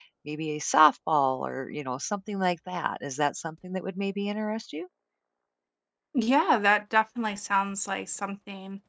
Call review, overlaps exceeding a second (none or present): none